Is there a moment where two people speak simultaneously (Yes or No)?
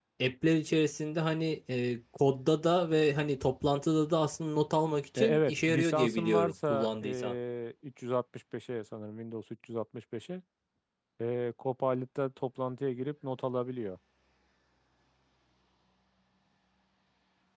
Yes